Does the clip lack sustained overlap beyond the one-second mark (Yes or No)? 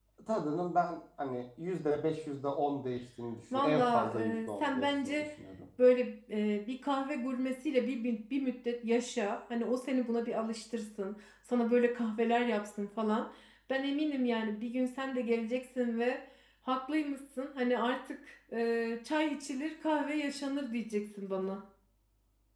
No